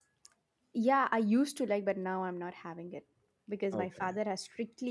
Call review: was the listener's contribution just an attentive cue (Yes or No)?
Yes